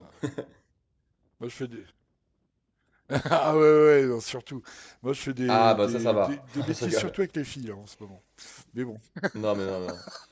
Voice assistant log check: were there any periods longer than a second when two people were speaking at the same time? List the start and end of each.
5.5-7.2

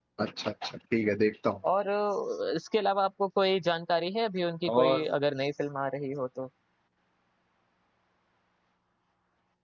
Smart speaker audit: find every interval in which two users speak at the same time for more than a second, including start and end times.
none

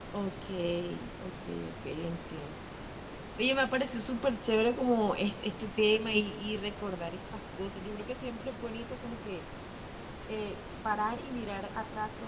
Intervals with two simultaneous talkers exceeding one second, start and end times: none

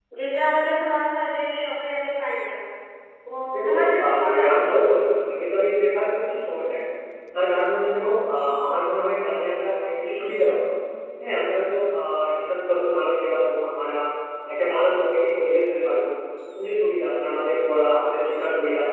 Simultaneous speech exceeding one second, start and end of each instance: 3.6-4.8

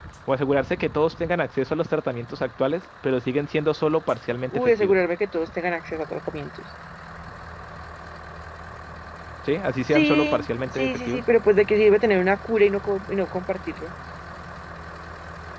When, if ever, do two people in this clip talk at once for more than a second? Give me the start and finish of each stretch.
9.8-11.2

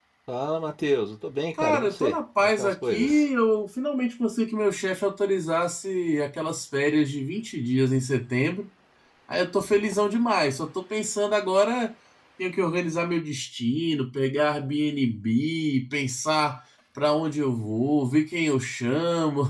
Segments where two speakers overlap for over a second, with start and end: 1.6-3.3

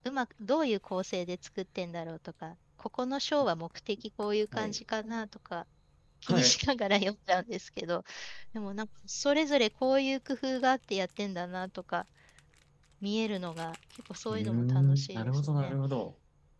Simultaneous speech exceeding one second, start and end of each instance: 14.3-15.8

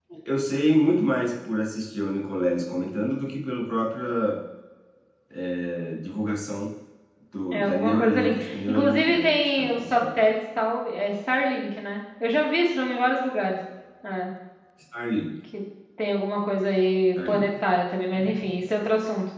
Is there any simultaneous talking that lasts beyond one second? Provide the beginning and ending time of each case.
7.5-10.2

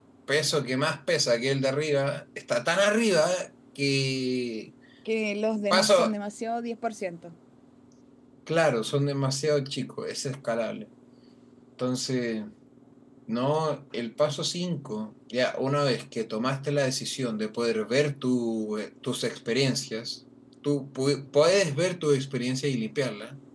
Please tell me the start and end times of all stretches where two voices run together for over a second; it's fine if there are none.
none

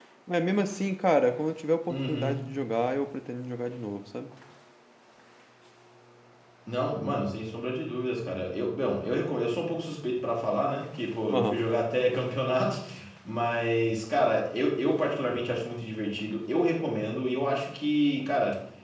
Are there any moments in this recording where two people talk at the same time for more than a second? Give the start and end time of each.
none

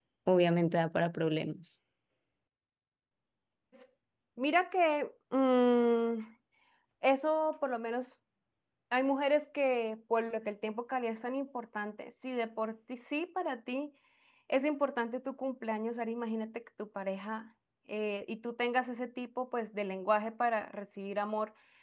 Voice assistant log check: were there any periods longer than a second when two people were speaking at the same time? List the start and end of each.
none

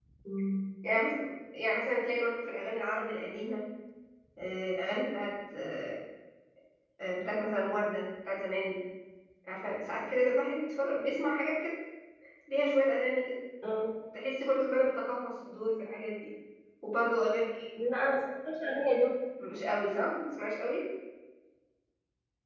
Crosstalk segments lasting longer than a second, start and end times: none

